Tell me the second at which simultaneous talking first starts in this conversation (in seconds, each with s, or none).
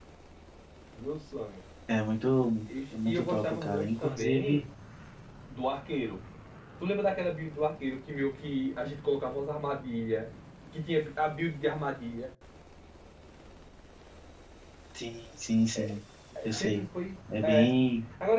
2.7 s